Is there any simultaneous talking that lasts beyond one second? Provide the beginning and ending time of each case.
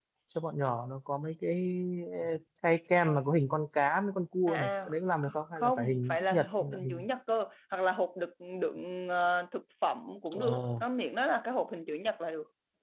5.2-7.0

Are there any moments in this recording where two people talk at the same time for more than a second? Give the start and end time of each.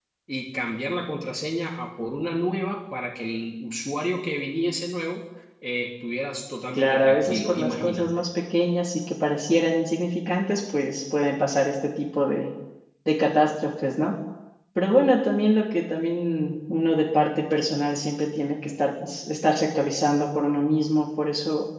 6.7-8.2

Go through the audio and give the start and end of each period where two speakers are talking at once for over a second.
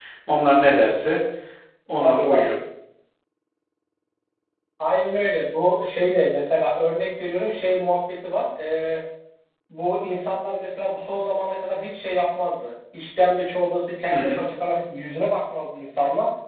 none

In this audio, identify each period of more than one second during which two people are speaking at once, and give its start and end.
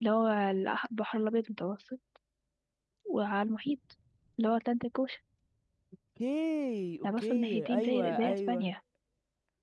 7.0-8.7

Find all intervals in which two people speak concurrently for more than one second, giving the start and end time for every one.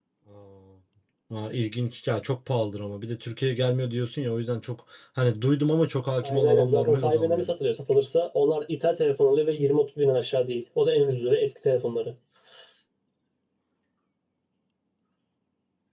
6.2-7.5

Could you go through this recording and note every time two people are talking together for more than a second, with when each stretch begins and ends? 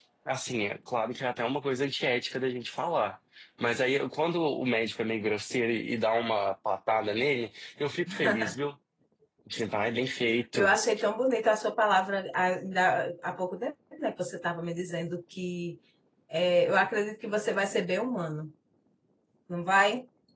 none

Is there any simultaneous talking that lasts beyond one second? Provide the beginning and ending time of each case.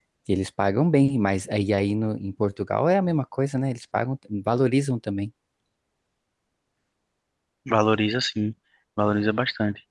none

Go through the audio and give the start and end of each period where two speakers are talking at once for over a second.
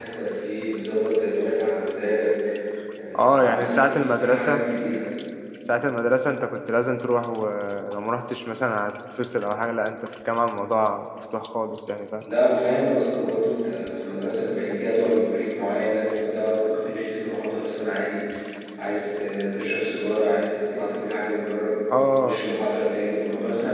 3.2-4.6

